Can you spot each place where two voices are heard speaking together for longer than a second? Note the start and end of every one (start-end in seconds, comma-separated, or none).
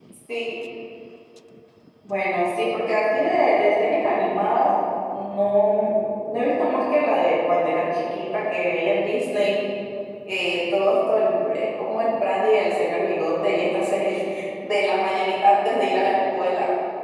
none